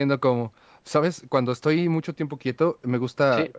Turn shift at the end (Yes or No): No